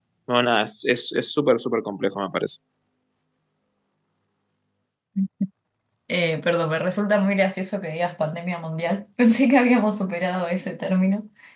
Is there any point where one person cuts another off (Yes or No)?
No